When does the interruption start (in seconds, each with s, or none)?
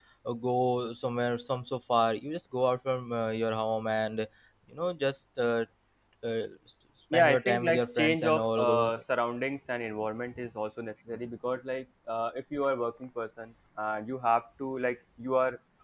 7.1 s